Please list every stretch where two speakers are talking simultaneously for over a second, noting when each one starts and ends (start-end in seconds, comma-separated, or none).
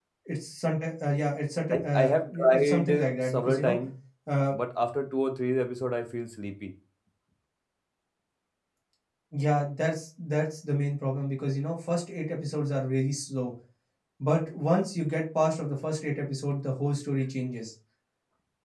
1.7-3.8